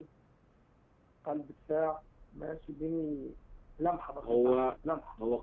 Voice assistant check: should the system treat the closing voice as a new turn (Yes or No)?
Yes